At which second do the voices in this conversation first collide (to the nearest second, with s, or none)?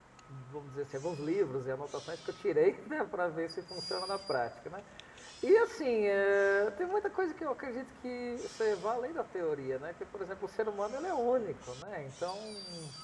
none